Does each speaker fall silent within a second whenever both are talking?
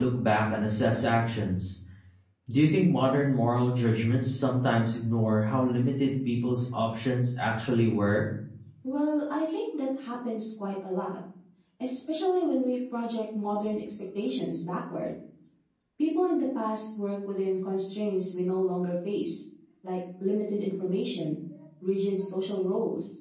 Yes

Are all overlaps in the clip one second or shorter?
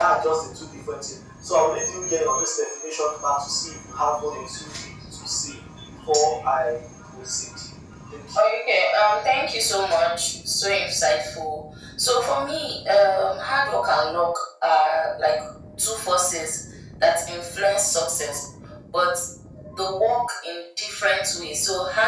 Yes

